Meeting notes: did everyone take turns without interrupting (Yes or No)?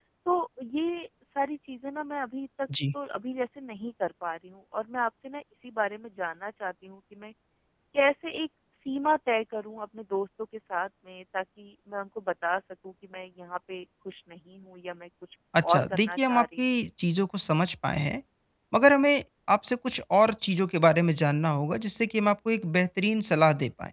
No